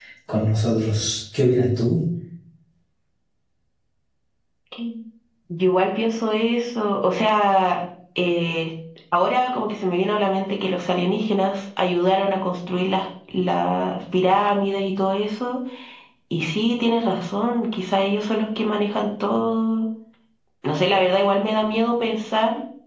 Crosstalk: none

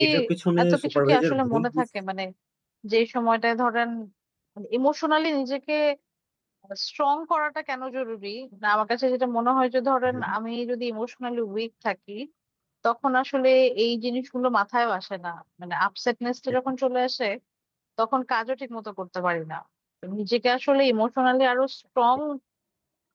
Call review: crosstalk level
present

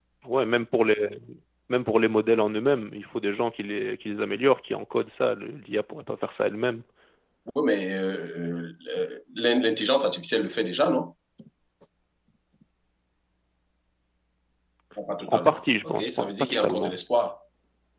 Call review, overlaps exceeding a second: present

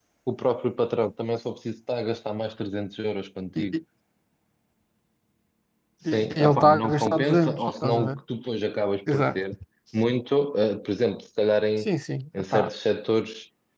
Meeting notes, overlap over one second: present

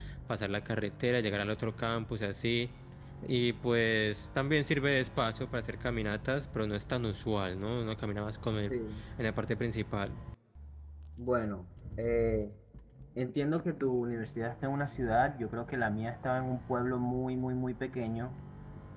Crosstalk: none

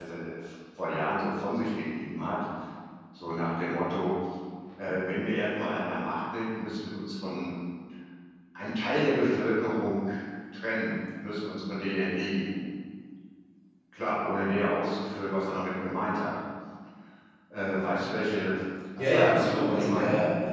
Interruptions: present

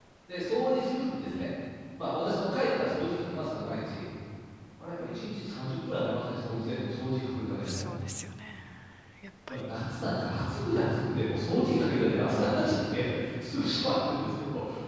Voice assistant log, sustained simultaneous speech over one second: none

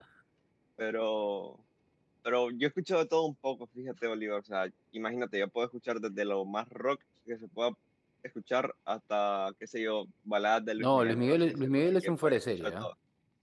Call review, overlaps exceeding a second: present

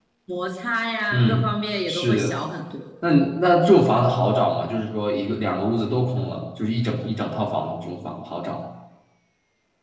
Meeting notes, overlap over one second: none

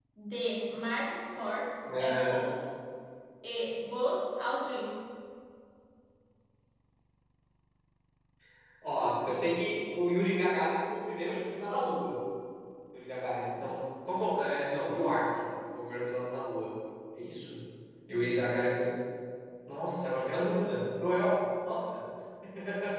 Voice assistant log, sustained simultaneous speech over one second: none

